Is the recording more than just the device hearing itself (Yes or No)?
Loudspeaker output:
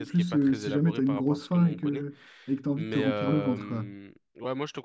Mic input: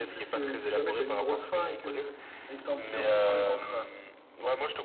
No